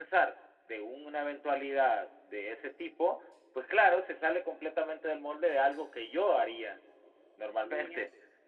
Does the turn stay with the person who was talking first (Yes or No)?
Yes